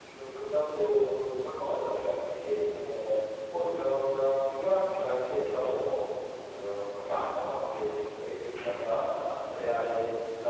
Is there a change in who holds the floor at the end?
No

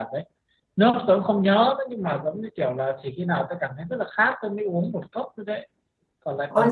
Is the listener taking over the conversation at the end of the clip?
Yes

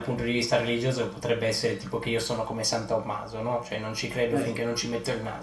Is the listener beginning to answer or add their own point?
No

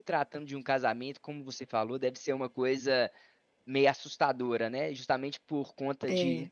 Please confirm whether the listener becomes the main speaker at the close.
No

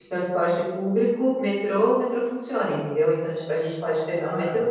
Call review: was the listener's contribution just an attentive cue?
Yes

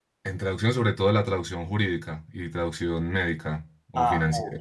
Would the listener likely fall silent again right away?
No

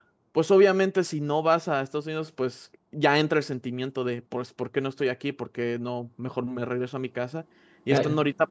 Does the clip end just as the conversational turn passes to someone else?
No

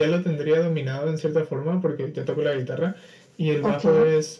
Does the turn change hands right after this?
No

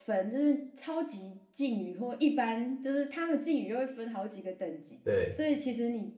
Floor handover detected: No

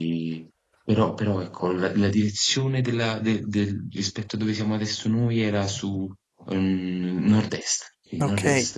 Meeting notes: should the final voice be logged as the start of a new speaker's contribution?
Yes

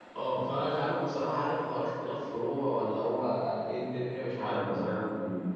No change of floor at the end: No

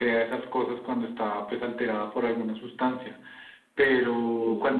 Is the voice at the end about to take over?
No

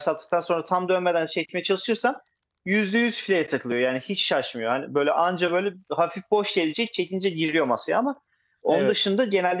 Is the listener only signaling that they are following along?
Yes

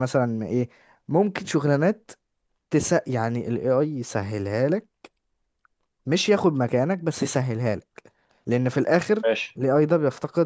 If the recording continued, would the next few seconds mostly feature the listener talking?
No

